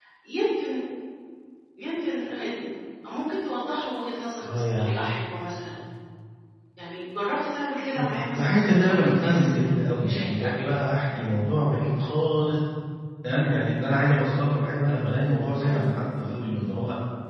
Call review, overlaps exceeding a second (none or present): present